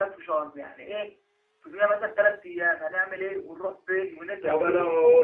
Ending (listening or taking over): taking over